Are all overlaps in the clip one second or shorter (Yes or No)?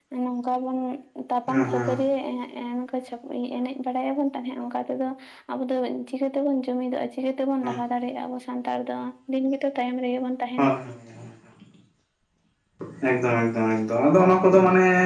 Yes